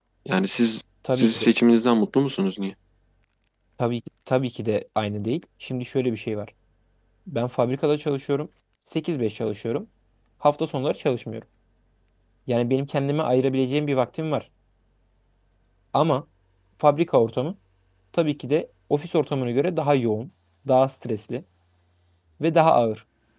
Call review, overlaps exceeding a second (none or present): none